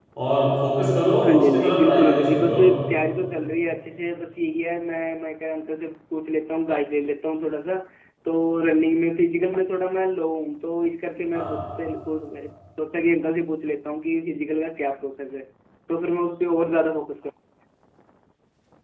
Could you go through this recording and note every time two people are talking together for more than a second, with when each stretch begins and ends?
1.2-2.6

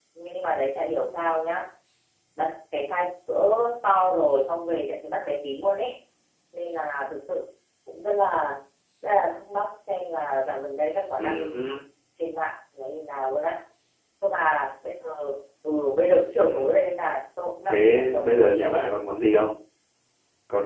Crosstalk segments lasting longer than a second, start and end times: 17.6-18.9

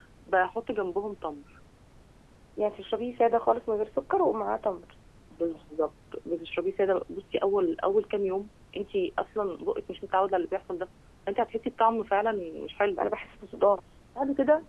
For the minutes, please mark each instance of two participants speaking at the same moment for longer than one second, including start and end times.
none

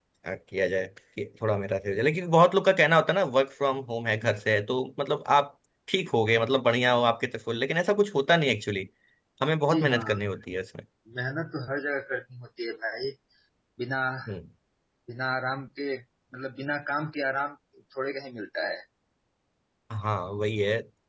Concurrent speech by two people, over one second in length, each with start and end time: none

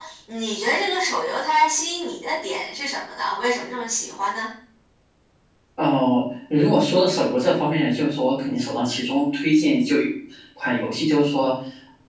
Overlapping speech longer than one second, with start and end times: none

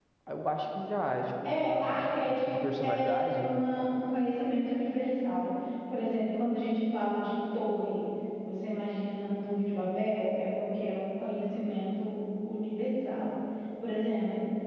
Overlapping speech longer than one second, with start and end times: 1.4-3.5

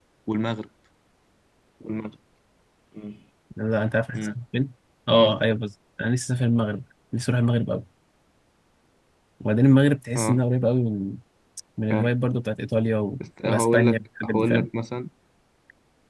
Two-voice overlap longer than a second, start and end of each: 13.4-14.7

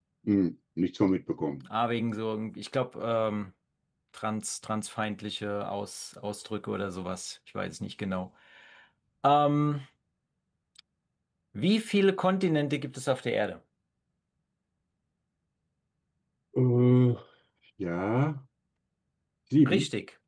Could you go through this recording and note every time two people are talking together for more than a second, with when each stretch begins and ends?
none

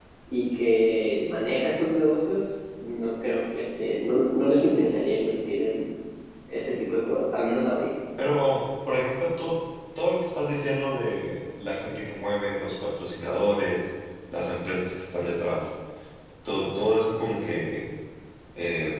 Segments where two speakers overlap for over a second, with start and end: none

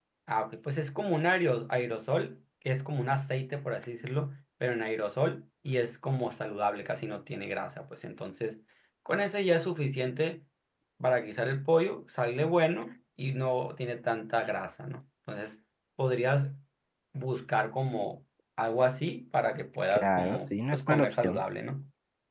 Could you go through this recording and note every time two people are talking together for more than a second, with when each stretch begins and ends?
19.9-21.4

